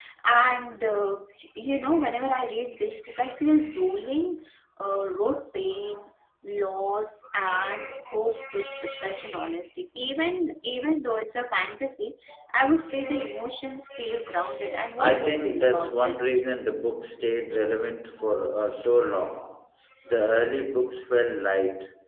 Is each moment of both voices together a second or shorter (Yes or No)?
No